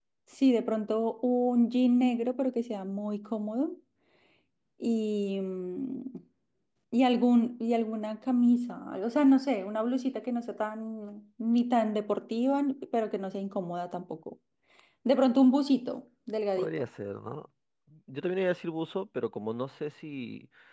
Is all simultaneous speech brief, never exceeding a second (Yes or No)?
Yes